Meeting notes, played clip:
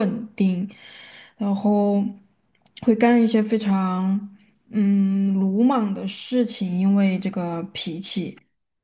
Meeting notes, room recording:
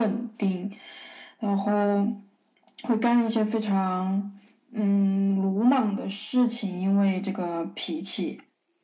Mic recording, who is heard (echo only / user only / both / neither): echo only